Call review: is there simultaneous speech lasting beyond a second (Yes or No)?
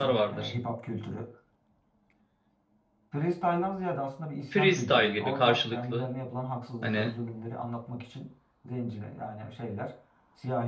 Yes